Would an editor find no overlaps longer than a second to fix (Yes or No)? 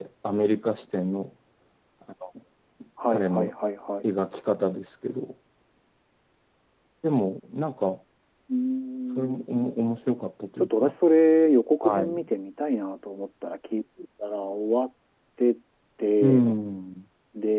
Yes